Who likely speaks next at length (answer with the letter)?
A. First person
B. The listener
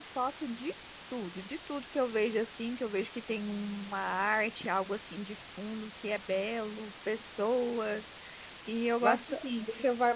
B